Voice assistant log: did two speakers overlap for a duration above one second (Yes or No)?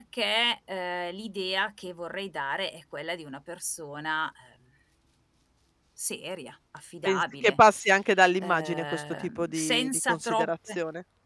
Yes